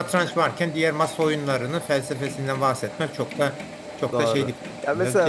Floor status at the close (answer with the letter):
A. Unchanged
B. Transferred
B